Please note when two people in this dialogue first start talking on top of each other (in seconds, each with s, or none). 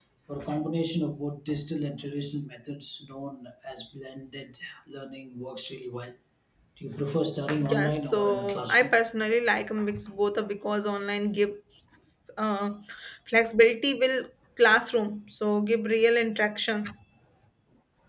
7.6 s